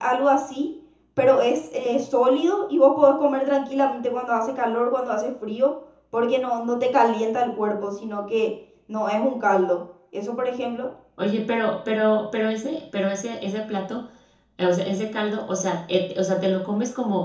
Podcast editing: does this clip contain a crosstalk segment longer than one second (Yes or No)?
No